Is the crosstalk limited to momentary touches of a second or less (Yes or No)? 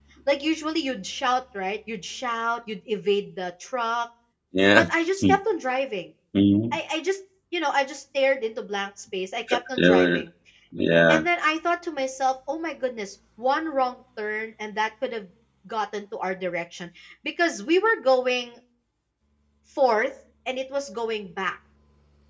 Yes